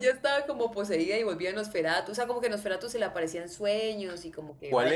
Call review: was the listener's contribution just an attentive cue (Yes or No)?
No